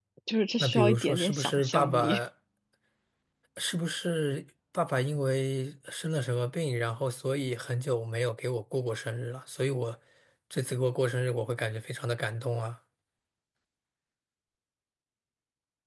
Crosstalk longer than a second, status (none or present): present